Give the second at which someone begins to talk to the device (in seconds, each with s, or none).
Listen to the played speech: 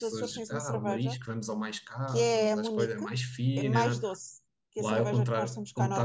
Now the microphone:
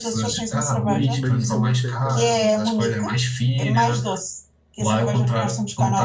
0.8 s